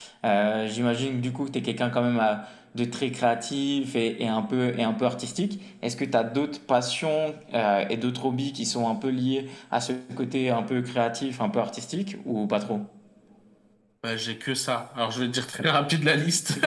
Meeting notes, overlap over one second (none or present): none